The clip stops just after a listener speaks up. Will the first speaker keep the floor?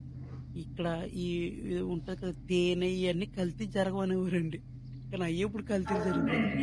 No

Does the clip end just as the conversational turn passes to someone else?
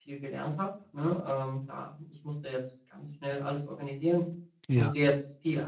No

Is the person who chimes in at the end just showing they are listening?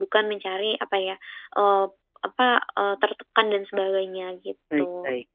No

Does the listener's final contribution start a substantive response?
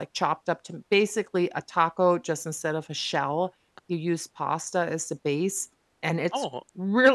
No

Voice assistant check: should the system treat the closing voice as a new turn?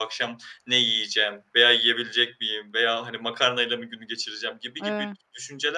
No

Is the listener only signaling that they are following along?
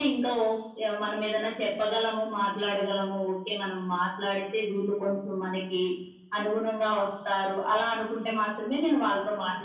No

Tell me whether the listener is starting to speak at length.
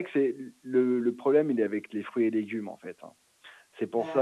No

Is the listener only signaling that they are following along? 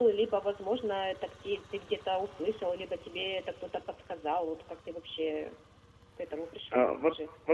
No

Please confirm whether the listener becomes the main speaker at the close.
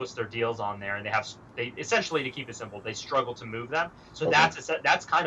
No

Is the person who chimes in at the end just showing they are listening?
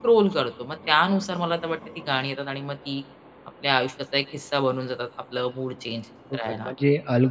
No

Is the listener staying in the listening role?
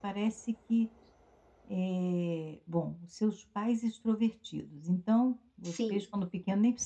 Yes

